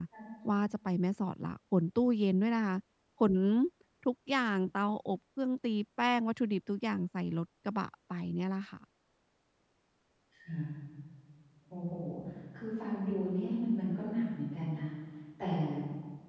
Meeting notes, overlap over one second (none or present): none